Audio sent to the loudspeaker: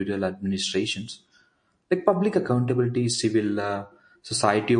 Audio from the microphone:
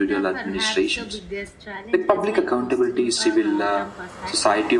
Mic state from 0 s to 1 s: both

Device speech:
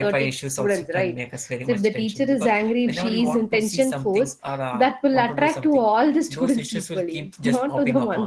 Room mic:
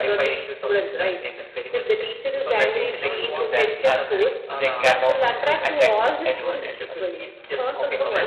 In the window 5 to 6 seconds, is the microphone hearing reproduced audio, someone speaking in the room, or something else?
both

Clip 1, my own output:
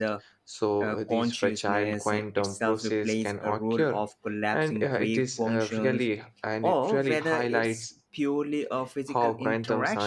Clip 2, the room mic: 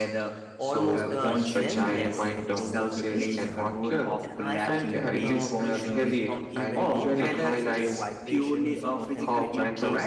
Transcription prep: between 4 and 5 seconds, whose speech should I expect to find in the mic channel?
both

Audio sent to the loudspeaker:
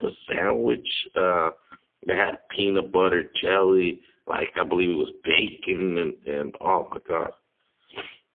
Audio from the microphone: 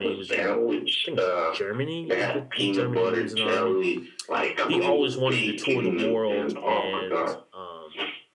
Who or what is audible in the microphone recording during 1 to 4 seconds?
both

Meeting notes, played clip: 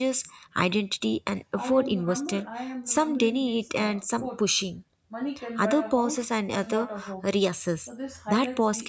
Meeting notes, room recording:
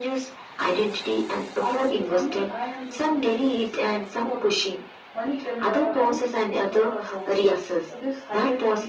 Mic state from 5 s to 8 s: echo only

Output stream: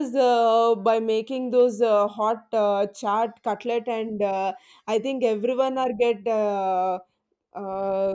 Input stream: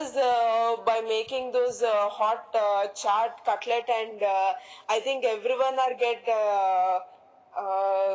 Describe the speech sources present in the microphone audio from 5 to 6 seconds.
echo only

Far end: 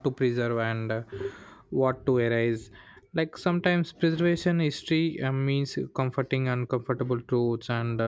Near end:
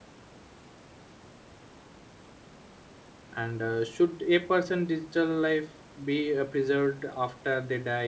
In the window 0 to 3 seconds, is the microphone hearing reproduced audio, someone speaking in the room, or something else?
neither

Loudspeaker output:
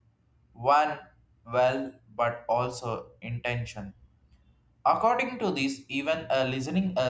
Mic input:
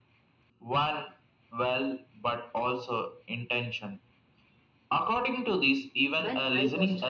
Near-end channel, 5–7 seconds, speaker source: both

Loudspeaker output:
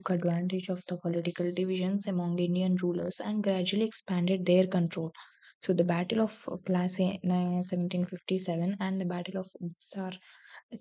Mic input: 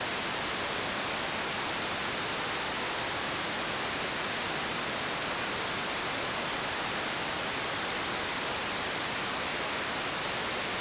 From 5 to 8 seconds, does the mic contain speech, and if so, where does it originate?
neither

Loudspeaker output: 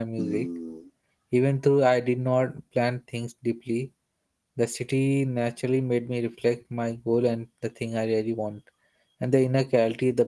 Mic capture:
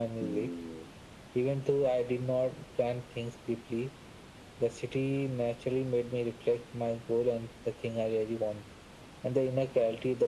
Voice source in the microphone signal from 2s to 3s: echo only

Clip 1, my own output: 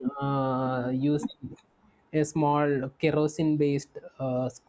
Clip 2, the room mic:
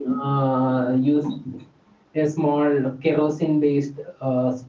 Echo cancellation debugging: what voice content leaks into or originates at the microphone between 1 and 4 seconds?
echo only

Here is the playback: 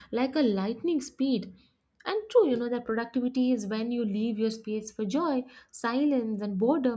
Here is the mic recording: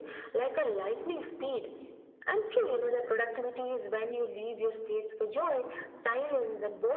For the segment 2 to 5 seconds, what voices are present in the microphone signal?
echo only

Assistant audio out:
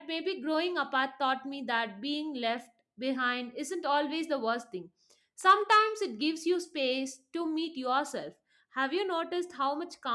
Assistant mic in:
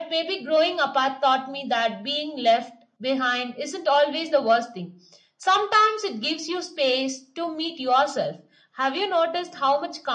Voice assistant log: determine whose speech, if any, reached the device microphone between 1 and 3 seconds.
echo only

